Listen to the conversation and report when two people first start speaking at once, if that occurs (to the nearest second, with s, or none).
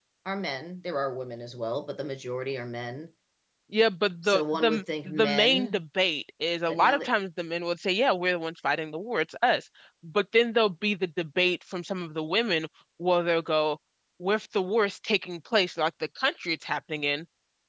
4 s